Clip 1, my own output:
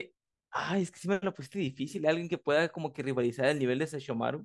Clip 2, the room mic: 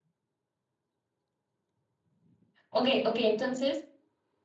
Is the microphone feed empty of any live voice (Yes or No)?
No